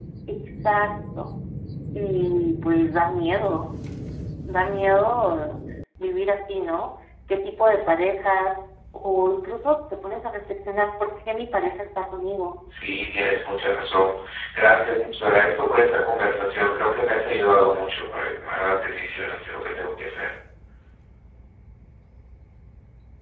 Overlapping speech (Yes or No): No